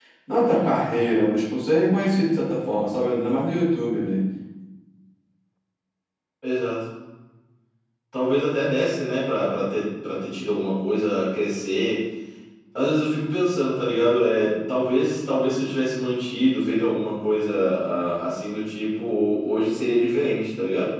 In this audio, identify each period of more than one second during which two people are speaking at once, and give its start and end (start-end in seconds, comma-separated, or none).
none